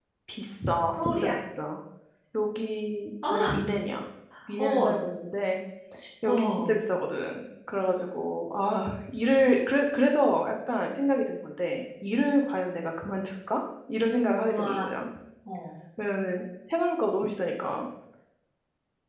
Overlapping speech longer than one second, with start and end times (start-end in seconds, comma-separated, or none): none